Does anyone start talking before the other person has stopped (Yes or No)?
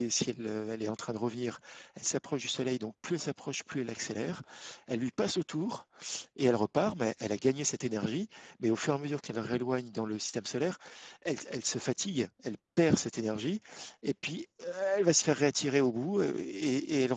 No